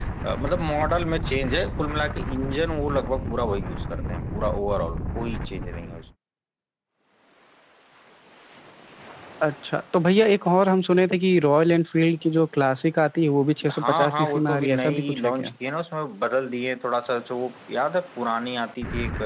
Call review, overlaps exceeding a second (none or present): present